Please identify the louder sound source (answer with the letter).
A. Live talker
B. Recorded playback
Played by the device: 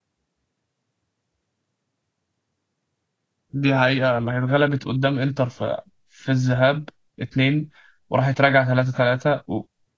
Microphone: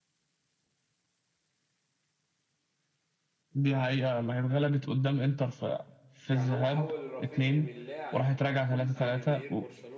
B